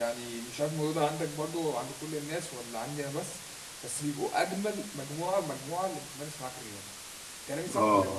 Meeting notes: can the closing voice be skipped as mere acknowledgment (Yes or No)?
No